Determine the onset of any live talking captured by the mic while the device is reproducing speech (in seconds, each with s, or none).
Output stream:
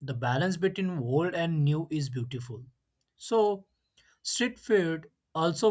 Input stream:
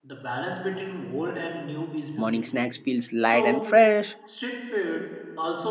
2.1 s